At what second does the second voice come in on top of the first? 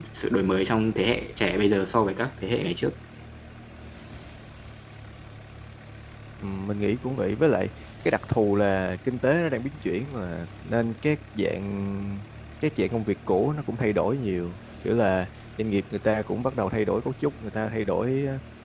none

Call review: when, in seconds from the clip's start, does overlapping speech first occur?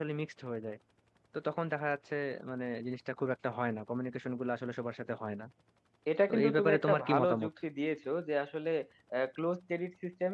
6 s

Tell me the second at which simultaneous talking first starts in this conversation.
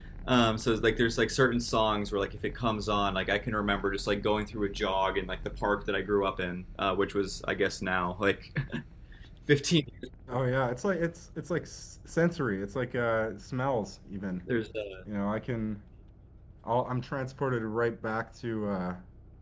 none

